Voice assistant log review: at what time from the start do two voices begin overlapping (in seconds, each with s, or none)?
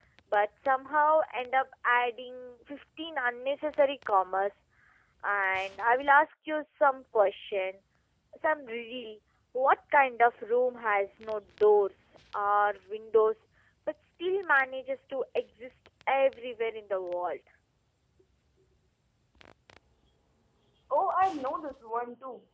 none